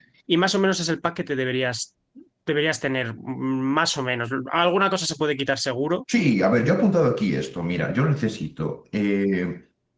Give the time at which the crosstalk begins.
none

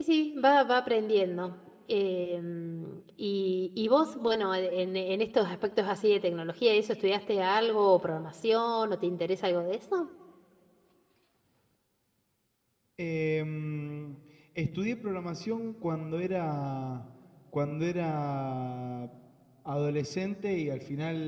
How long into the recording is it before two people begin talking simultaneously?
none

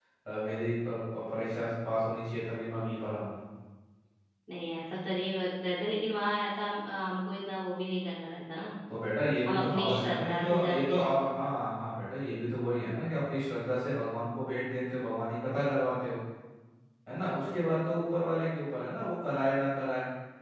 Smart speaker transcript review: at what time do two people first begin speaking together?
9 s

